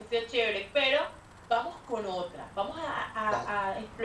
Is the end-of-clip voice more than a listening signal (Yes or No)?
No